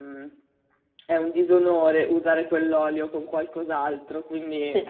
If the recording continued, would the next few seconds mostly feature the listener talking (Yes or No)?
No